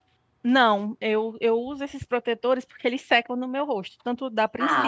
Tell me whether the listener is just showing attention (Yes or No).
Yes